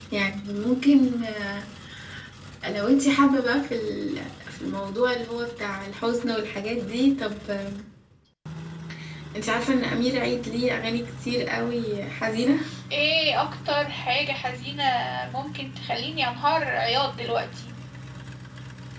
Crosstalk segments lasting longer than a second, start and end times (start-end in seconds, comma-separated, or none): none